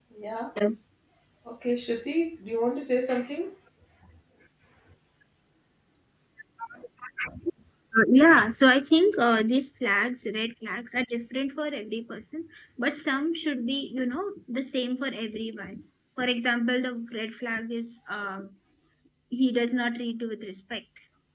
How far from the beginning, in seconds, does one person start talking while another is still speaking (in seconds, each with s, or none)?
none